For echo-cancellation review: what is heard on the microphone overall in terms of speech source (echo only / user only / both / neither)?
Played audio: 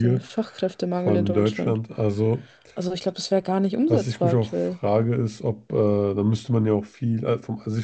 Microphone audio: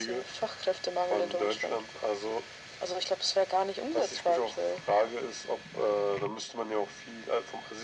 echo only